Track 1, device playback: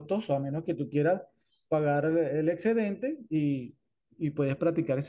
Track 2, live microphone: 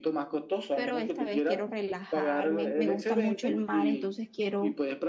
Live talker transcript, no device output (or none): pero esta vez quiero relajarme. Me gusta mucho el mar, entonces quiero,